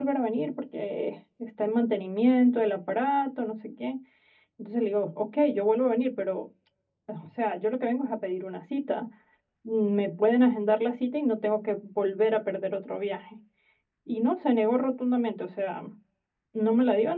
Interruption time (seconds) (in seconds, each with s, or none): none